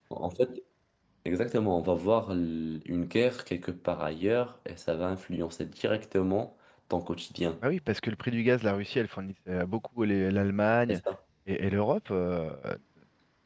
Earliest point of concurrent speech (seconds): none

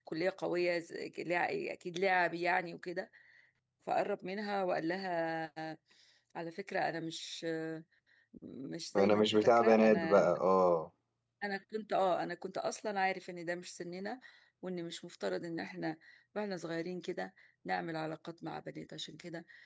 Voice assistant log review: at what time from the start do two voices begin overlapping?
8.9 s

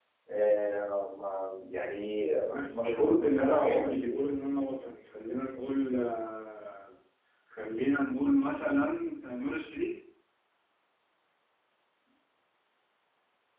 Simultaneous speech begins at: 2.6 s

